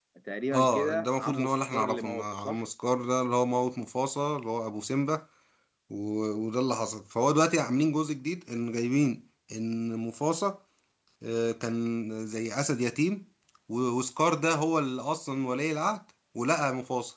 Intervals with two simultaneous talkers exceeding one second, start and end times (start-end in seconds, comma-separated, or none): 0.5-2.6